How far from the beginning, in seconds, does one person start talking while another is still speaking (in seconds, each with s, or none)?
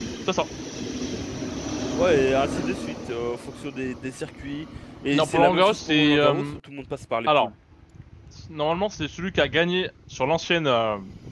5.1 s